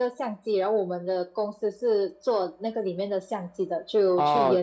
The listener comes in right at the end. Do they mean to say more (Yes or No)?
No